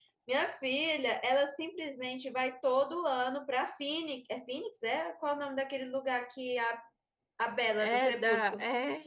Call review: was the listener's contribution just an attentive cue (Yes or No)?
No